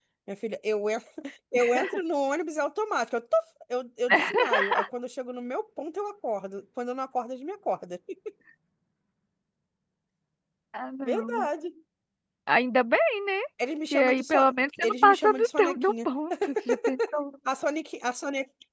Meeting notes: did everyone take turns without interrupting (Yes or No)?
No